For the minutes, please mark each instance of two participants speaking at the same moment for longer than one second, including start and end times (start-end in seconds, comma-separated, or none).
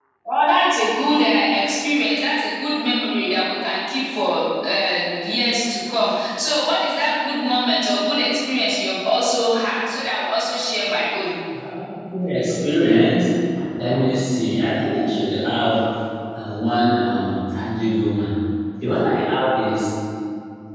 none